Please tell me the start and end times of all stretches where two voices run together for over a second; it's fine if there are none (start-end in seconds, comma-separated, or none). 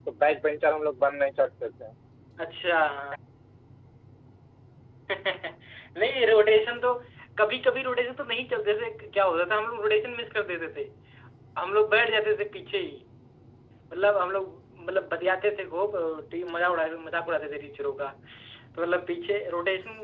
none